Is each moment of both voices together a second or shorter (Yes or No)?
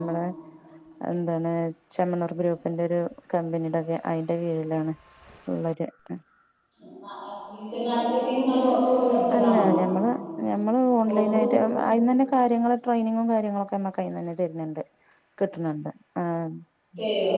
Yes